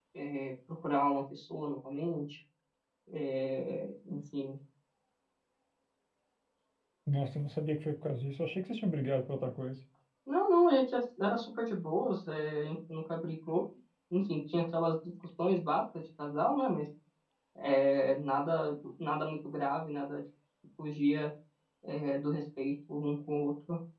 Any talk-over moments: No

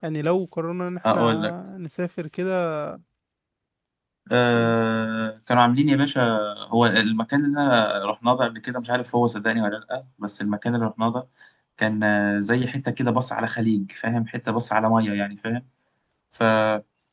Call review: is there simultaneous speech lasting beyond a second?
No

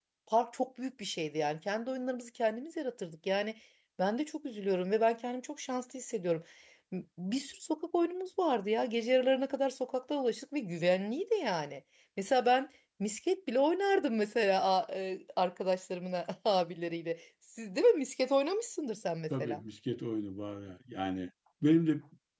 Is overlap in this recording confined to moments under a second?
Yes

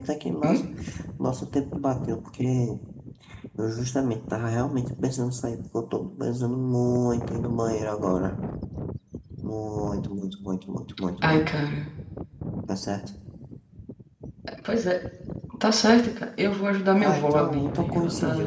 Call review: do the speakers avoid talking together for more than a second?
No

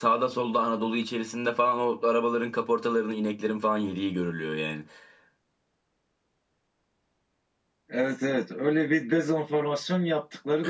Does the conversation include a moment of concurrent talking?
No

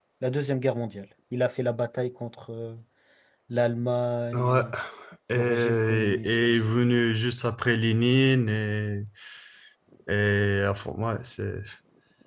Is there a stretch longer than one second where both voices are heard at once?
Yes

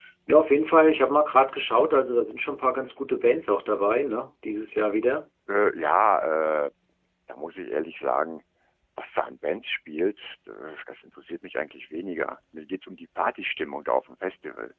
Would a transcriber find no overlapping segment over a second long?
Yes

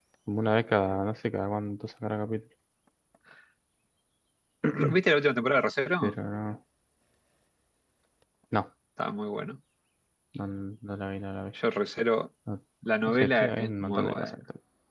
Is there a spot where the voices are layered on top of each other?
Yes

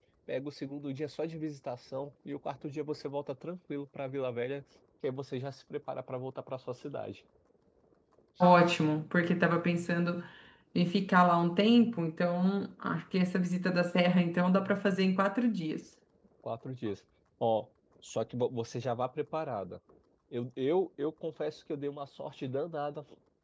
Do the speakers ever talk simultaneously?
No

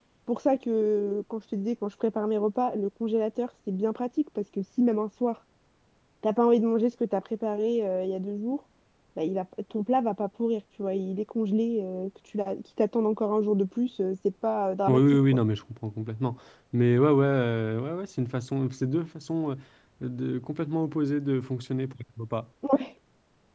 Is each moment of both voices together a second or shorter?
Yes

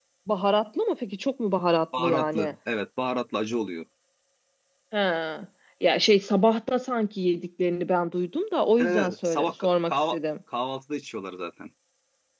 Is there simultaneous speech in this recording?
Yes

